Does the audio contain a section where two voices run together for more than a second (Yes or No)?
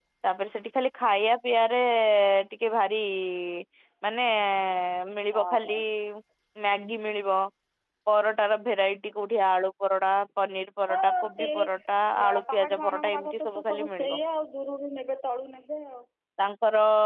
Yes